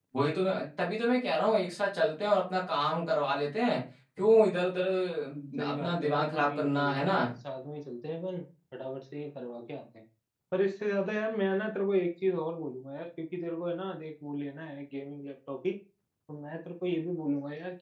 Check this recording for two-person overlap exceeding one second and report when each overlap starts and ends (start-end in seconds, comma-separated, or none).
5.7-7.2